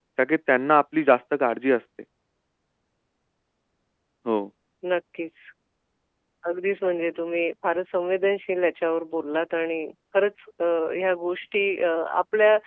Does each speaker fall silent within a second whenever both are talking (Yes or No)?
Yes